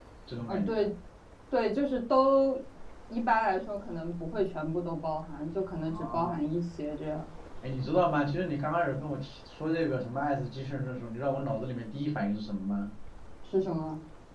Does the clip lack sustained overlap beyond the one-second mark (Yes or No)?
Yes